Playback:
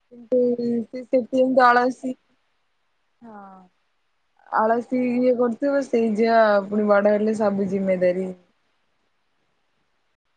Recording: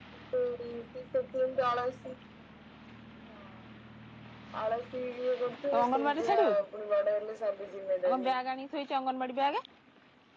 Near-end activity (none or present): present